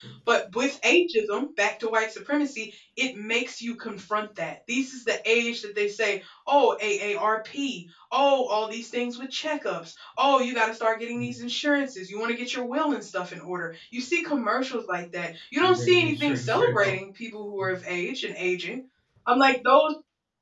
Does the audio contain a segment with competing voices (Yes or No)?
Yes